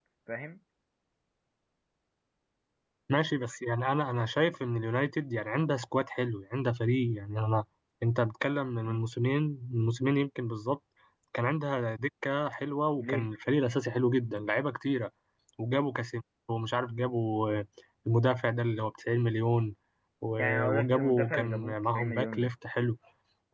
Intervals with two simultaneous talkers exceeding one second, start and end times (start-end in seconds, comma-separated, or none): 20.4-22.5